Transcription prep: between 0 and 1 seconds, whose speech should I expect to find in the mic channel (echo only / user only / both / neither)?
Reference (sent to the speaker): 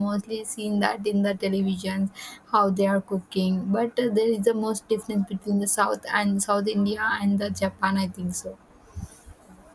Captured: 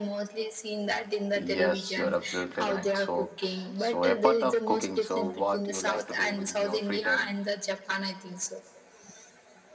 echo only